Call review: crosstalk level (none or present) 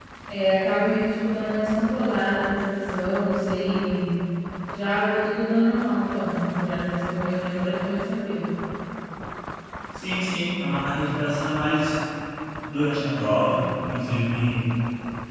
none